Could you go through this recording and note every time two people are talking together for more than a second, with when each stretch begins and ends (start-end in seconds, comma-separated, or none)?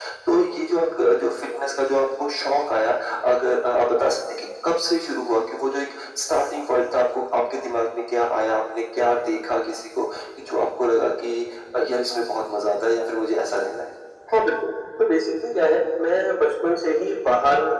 none